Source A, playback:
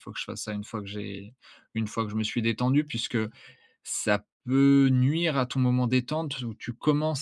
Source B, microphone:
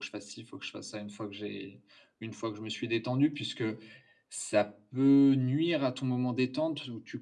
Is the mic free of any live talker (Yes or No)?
Yes